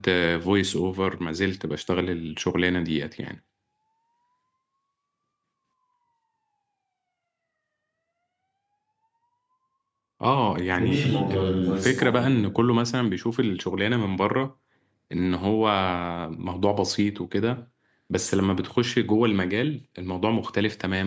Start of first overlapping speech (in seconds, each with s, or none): 10.8 s